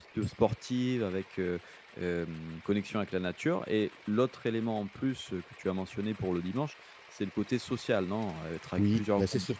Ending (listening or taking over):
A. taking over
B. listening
A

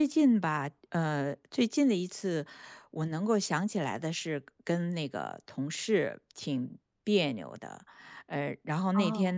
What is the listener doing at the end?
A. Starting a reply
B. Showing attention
B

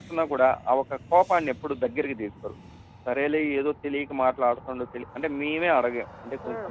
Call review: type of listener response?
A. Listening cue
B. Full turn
A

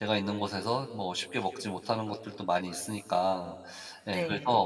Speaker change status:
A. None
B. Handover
A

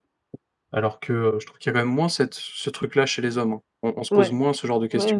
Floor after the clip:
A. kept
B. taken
B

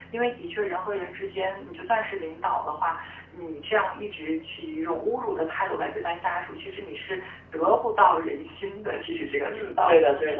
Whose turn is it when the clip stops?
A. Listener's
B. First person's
A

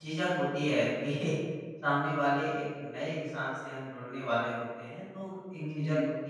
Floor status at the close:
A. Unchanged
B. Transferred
A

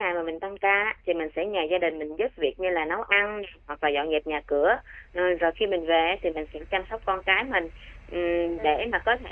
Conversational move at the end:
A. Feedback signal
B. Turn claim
A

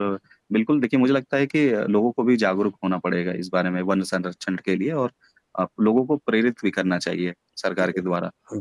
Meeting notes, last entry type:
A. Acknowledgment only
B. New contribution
B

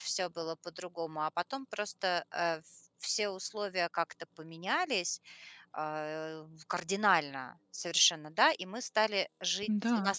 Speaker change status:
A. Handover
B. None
B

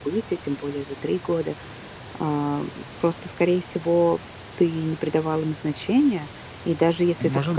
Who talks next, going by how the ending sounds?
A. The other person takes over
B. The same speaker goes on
B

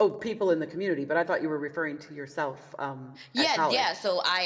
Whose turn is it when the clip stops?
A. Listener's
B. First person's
A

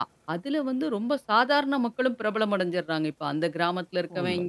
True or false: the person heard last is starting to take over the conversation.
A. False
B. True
A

